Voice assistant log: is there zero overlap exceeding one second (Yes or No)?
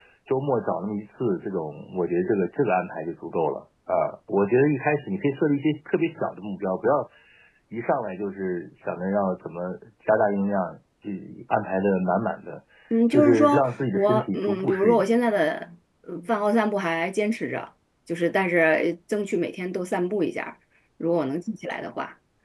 No